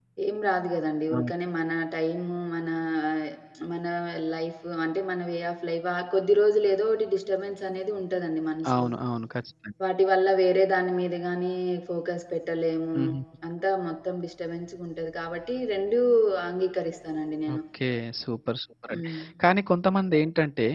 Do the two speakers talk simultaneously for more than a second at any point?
No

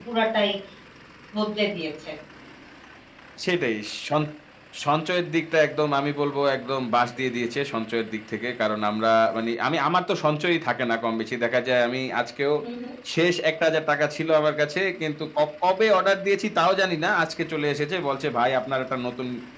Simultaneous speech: No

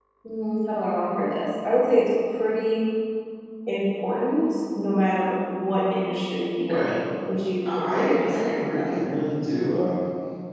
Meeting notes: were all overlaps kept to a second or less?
No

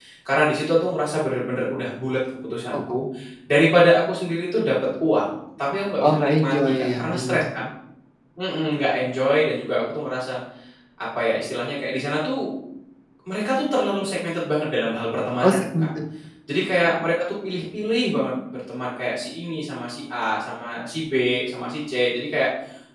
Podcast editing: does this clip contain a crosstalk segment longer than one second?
Yes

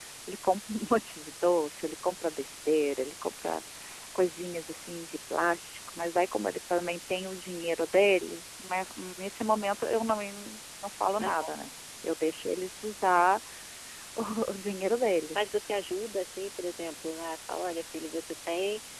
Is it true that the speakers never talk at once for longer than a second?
Yes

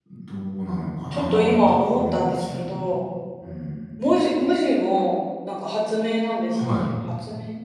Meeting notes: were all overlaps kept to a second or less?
No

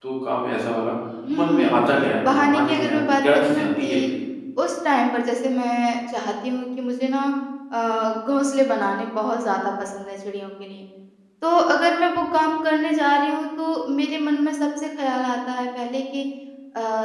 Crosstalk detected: Yes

